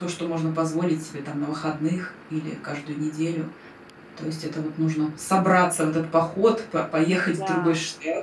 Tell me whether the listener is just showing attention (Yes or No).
Yes